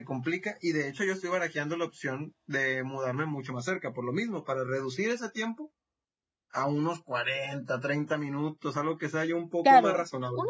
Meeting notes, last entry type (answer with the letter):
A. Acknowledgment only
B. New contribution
B